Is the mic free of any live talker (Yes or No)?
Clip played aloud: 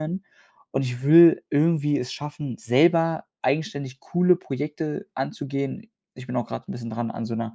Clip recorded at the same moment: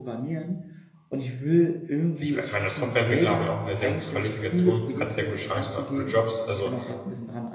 No